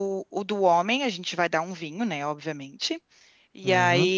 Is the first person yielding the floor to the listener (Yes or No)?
No